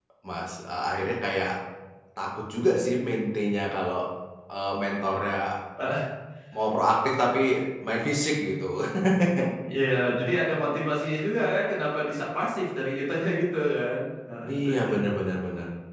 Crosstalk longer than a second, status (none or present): none